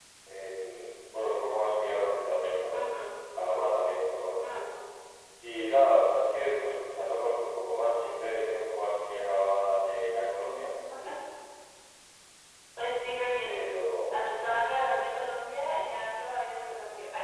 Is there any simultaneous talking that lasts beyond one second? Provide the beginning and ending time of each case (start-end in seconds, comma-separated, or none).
none